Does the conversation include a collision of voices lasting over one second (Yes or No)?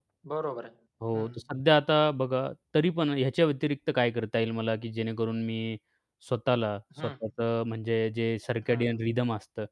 No